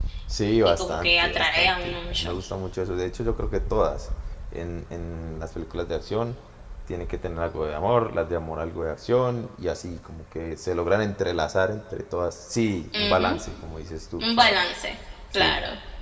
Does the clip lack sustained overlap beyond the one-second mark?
No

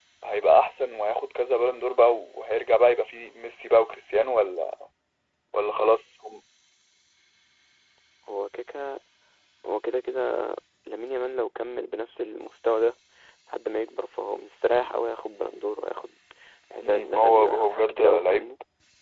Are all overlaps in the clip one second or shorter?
No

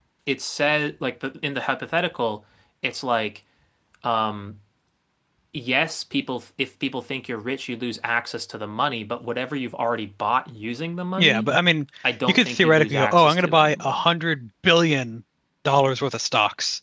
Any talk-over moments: Yes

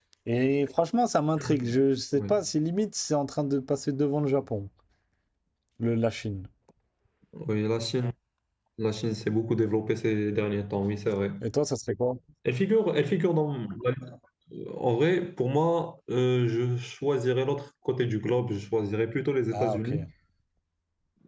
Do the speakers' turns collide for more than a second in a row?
No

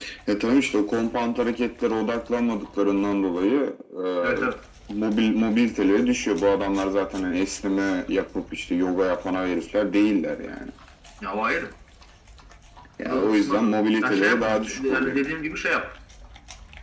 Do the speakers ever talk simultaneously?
Yes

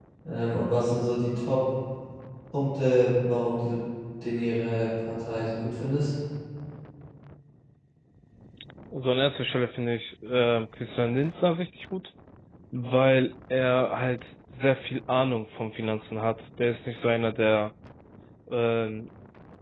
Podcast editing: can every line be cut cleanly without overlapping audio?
Yes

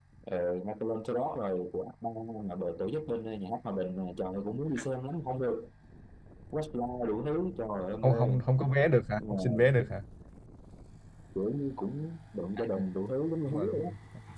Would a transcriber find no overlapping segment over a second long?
Yes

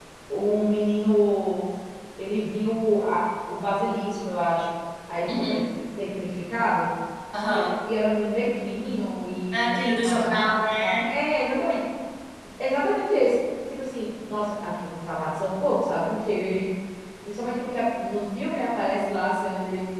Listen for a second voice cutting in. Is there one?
Yes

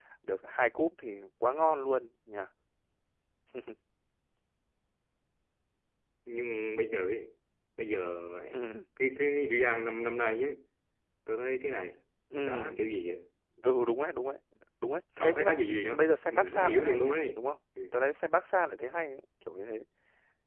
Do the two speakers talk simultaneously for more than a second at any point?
Yes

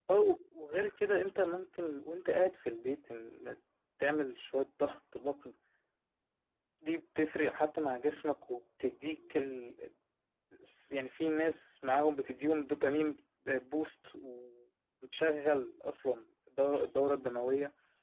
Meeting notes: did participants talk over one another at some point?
No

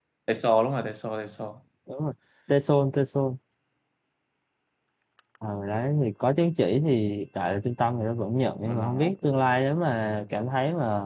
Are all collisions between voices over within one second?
Yes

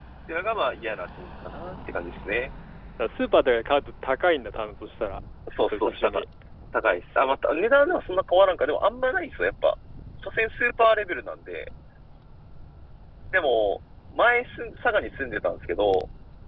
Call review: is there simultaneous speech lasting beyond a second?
No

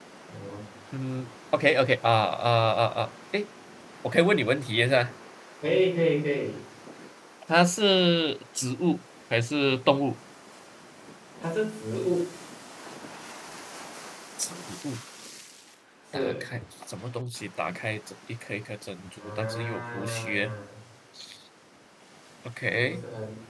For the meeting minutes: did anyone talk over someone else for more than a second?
Yes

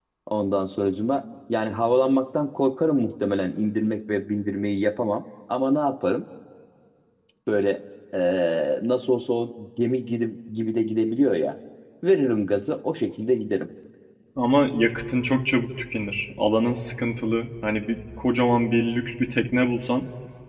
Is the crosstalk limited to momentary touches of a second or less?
Yes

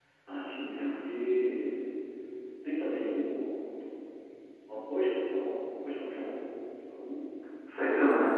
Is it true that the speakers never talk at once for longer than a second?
Yes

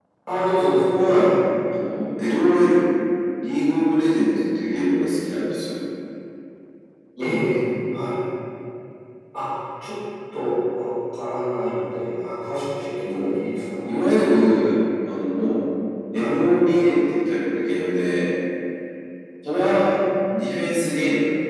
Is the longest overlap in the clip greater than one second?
No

